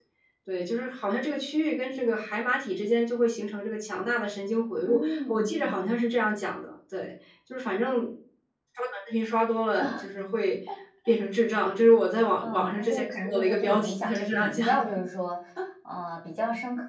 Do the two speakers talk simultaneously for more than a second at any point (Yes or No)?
Yes